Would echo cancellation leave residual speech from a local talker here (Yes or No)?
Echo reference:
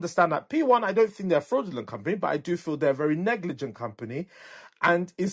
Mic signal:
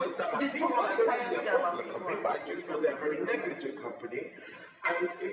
Yes